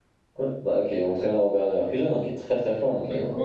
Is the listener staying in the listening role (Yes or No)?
No